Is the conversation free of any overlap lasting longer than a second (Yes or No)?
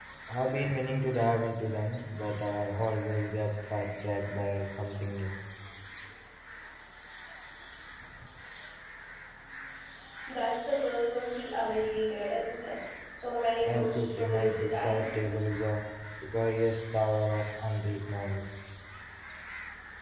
No